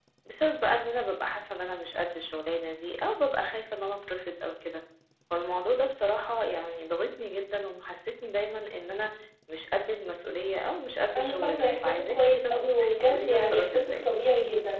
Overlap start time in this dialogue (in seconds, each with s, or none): 11.1 s